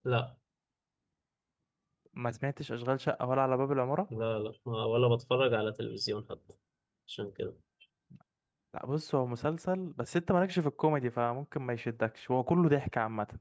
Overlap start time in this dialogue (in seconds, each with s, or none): none